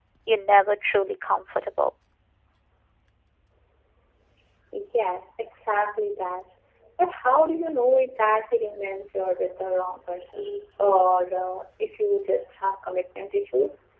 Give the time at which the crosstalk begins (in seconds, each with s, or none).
none